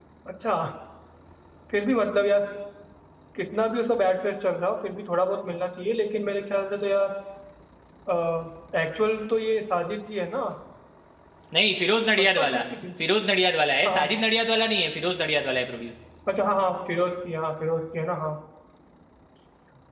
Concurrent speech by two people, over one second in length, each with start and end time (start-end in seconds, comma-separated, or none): none